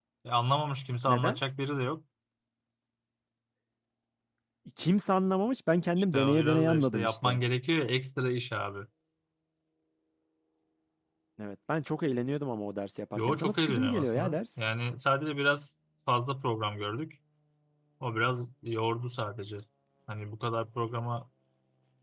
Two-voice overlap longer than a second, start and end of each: 6.1-7.4, 13.2-14.4

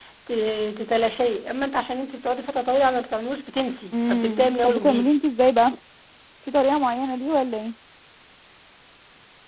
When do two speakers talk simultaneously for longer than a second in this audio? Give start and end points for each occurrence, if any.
3.9-5.2

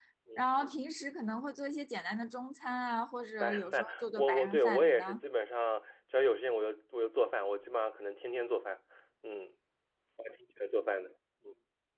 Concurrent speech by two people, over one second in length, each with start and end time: 3.4-5.2

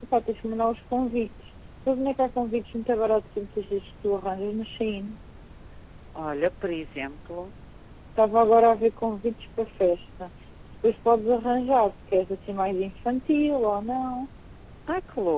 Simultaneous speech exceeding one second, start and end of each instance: none

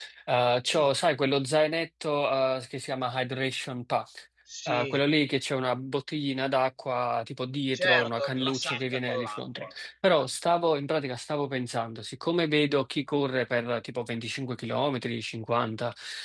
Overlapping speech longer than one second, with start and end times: 7.7-9.7

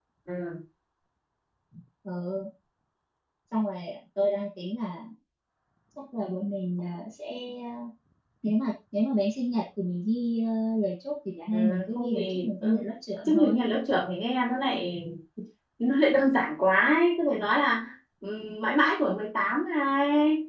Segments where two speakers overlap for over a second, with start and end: 11.5-12.8

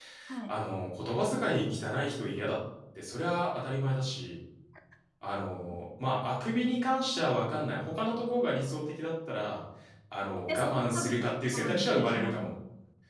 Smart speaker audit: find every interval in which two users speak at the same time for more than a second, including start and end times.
10.5-12.5

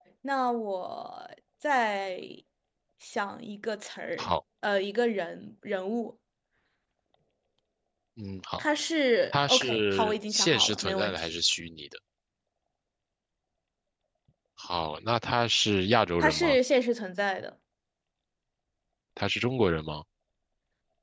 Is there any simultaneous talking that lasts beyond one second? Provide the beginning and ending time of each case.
9.3-11.3

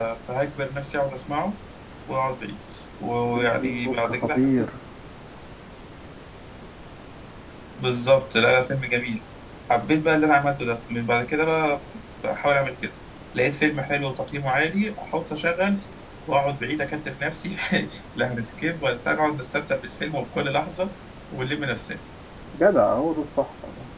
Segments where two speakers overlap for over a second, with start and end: 3.4-4.7

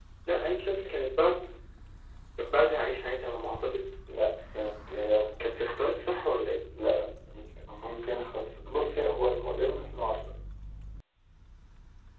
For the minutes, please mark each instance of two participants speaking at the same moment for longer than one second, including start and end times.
none

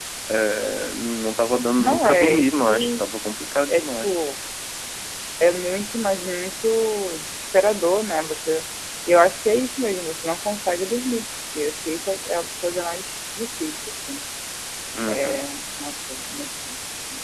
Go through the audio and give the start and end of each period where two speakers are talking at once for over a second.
1.8-3.0

